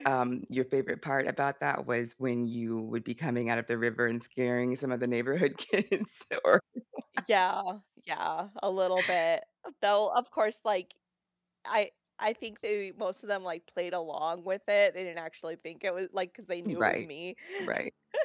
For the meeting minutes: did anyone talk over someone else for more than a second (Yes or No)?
No